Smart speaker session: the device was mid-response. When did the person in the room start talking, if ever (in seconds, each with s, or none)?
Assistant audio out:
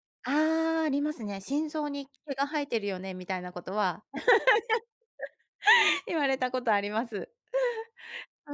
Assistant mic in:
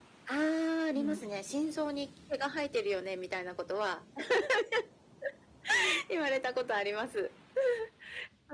0.9 s